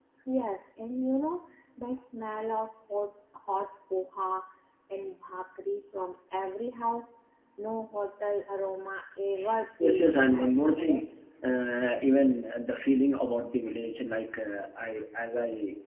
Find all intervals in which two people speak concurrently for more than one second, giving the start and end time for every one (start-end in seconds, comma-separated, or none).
9.8-11.0